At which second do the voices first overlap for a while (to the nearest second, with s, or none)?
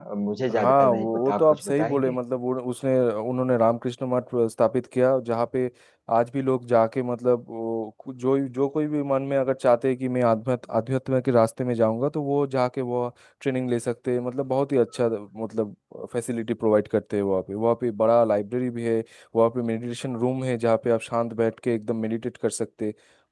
1 s